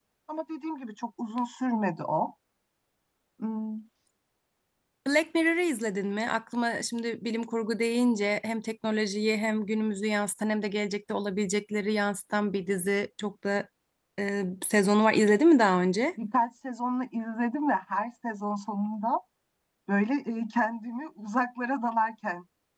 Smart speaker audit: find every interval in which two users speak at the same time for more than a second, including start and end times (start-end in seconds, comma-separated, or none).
none